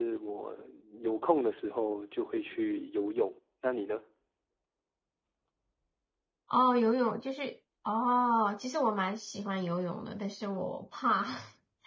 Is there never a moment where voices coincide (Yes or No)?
Yes